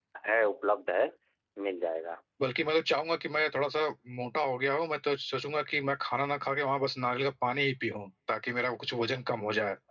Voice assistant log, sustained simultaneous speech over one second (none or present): none